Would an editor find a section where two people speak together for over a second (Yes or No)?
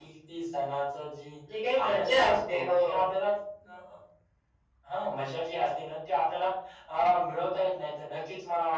Yes